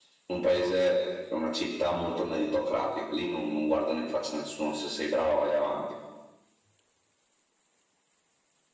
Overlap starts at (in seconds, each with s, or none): none